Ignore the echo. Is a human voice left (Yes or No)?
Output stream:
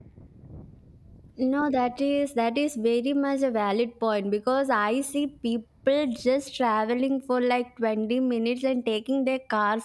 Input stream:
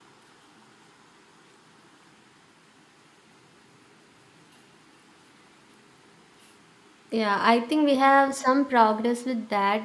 Yes